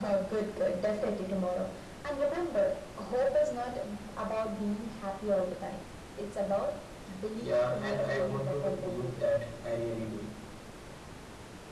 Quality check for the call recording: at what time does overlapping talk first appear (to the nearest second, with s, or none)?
7 s